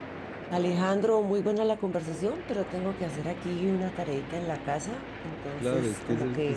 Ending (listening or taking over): taking over